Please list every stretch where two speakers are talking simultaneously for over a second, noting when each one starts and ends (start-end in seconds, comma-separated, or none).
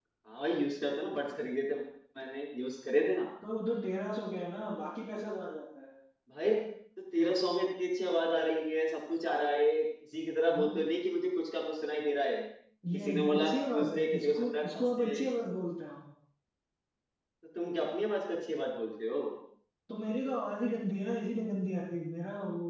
12.9-15.2